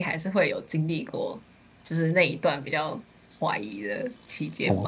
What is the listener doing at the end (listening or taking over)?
taking over